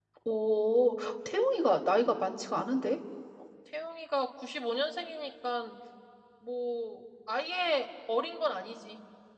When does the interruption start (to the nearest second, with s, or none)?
none